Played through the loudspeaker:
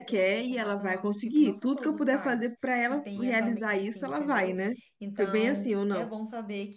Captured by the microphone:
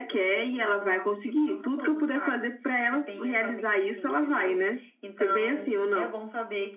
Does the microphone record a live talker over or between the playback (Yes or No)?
No